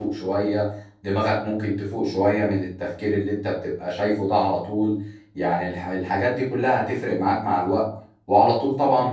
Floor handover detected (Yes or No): No